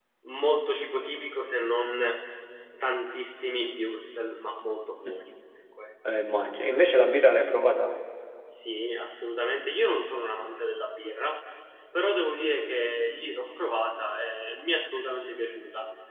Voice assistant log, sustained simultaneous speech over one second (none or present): none